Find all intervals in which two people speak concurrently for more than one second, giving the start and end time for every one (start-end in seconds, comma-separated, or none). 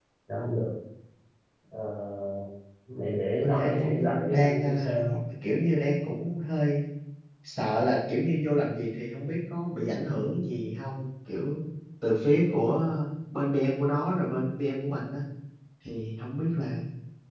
3.4-4.8